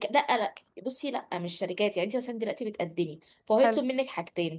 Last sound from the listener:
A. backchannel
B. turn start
A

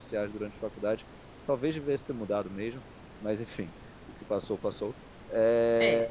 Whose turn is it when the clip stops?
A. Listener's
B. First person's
B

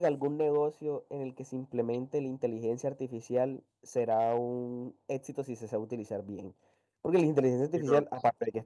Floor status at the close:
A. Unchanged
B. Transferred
A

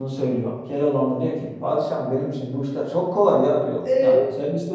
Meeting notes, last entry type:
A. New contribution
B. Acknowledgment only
B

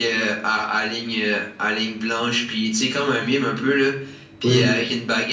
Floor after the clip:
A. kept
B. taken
A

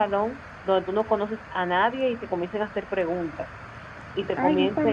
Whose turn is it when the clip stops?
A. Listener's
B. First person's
A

